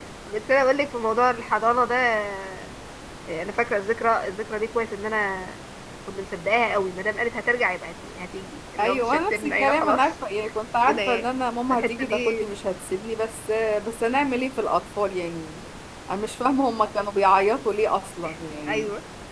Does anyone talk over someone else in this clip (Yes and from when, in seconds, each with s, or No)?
Yes, from 8.8 s